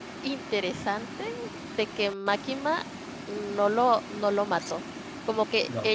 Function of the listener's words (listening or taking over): listening